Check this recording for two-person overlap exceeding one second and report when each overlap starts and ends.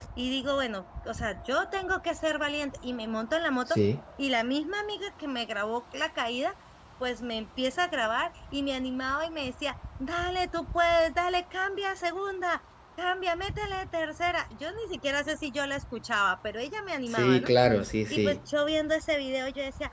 none

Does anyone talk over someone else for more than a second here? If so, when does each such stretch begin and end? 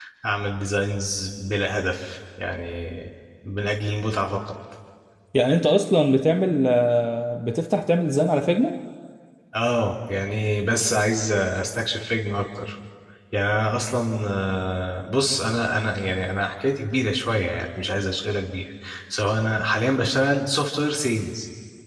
none

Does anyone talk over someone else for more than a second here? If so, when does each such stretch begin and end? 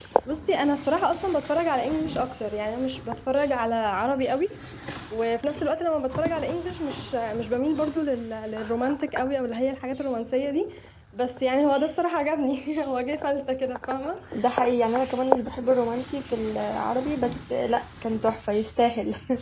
none

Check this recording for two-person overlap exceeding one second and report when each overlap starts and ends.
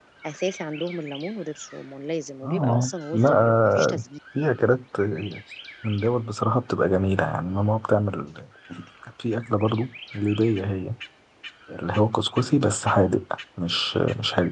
2.4-4.0

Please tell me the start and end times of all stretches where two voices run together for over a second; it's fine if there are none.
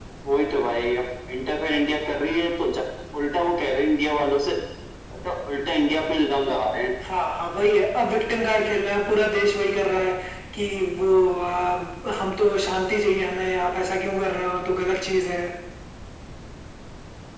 none

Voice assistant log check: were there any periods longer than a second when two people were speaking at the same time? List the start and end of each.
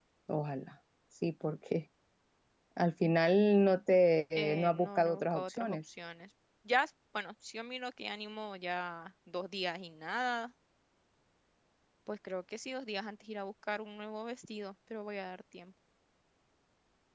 4.3-5.9

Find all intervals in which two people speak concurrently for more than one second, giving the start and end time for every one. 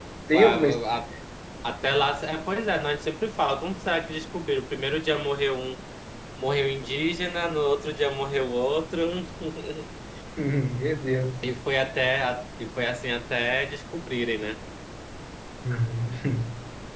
none

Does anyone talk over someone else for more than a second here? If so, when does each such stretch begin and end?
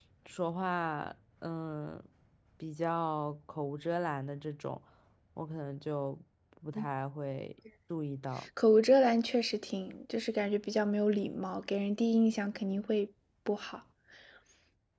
none

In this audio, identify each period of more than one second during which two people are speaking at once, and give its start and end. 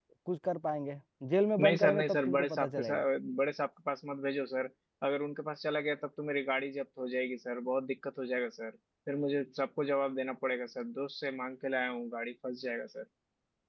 1.6-3.0

